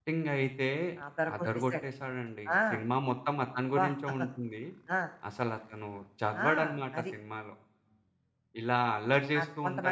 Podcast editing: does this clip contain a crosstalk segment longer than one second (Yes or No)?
No